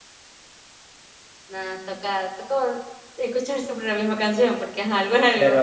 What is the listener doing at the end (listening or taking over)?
taking over